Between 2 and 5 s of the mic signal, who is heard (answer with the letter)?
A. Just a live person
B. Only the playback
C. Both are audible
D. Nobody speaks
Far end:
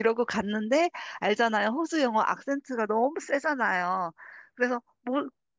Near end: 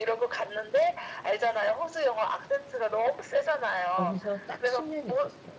C